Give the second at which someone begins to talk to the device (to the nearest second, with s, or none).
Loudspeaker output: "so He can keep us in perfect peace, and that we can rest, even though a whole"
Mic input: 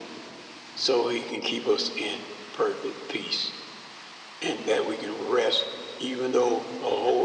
none